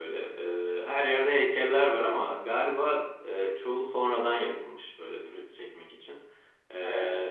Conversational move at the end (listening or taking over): listening